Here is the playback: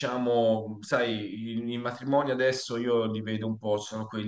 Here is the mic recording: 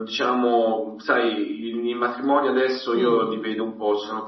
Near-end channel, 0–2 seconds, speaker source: echo only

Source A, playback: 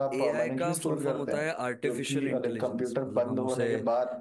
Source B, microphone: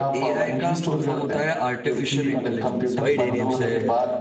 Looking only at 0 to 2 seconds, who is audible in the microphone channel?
echo only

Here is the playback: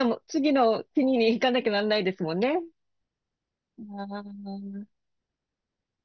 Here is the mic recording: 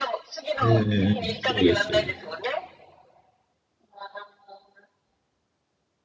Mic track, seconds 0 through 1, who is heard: both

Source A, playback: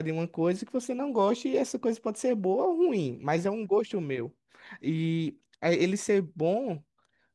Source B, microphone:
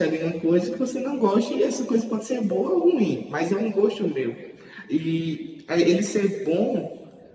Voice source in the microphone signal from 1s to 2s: echo only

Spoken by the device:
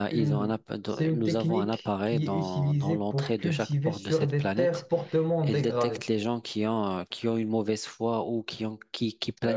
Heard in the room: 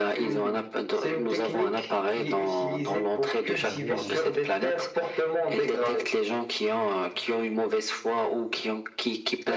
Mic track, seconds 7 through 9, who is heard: echo only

